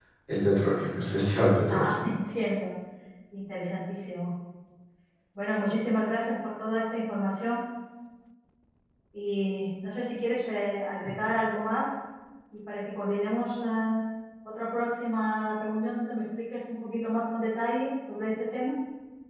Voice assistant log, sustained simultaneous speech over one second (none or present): none